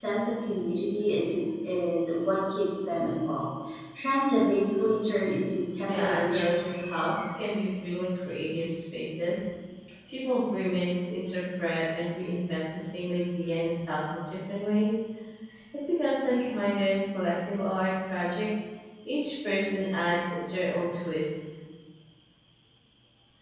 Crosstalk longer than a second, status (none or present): present